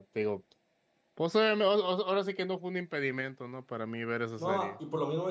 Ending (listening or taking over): taking over